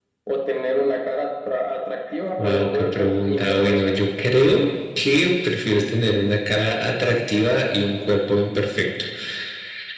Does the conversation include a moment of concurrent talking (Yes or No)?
Yes